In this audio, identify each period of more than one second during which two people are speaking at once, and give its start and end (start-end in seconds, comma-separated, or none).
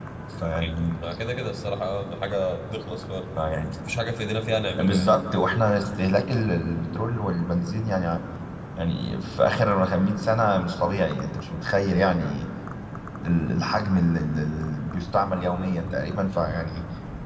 none